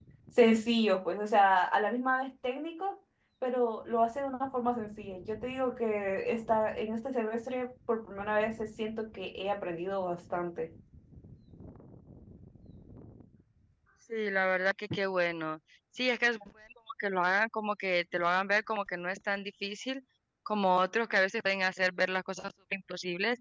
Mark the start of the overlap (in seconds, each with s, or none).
none